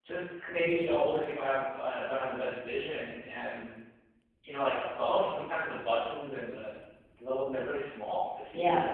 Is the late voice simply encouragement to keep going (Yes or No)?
No